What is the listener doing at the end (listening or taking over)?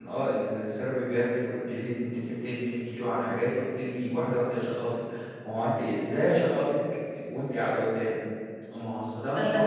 taking over